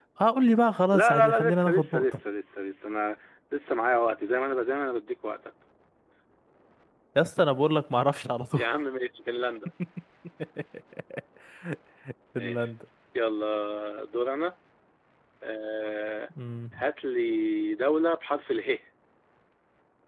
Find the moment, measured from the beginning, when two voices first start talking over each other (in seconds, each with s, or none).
0.9 s